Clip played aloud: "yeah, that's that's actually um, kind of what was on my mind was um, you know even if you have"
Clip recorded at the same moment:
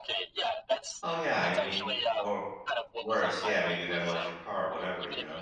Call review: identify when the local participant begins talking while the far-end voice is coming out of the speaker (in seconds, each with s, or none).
1.0 s